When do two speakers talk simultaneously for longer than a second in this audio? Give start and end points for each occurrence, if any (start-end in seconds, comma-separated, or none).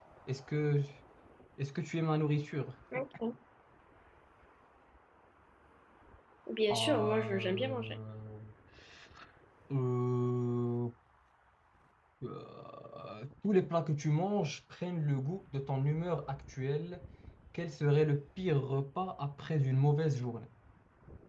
6.7-8.0